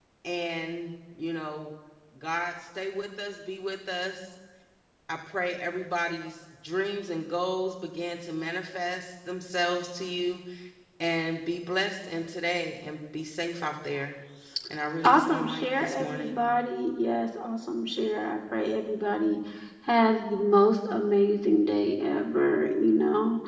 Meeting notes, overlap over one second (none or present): present